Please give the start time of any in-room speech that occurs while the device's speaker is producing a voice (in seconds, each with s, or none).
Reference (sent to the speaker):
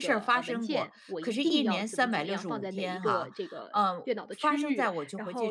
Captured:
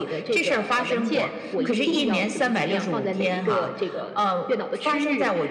1.5 s